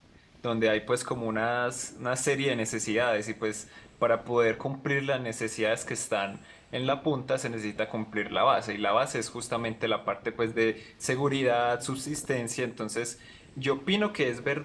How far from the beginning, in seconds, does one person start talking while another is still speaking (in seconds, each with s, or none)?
none